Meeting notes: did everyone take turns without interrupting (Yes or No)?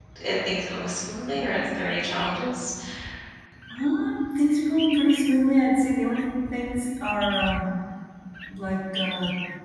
Yes